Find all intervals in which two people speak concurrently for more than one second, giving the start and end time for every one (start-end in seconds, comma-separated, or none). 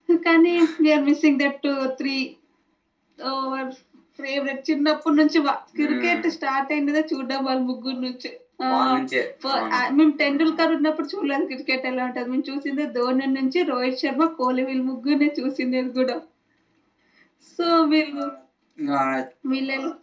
none